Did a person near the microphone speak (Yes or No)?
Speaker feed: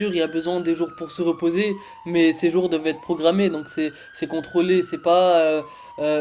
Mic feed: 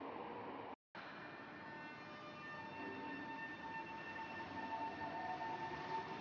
No